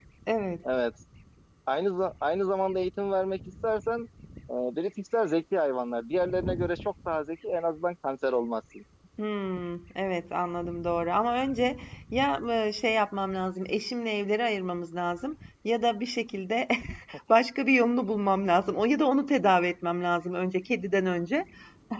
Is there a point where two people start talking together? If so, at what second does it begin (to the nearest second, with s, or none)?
none